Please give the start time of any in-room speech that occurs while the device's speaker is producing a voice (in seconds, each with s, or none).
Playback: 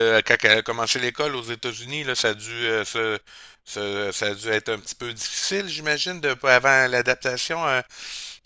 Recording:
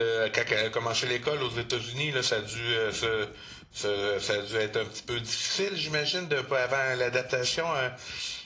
none